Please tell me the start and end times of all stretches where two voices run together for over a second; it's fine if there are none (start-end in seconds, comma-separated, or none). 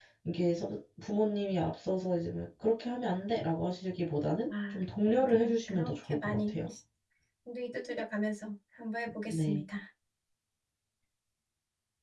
4.5-6.5